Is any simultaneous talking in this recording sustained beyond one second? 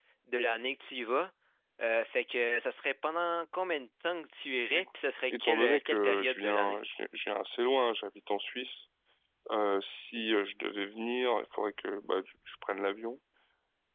Yes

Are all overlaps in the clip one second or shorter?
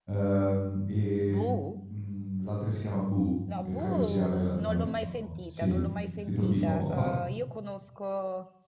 No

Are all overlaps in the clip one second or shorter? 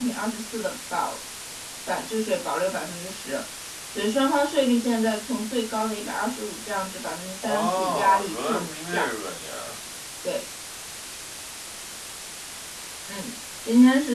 No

